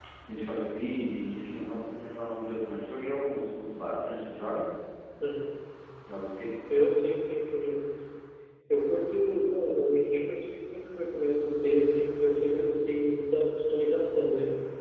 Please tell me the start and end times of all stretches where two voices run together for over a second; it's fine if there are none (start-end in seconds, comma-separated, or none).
none